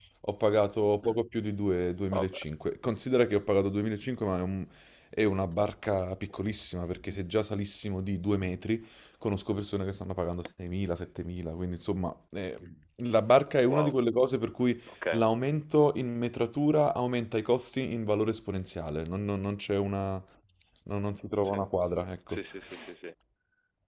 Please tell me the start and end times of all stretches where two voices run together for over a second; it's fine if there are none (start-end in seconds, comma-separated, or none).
none